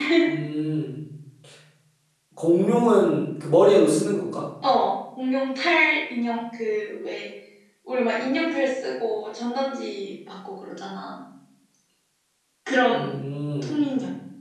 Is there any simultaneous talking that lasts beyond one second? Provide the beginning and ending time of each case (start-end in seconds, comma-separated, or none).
none